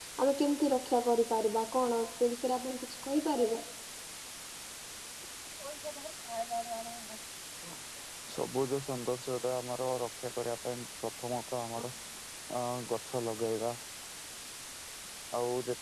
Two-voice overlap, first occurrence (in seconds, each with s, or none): none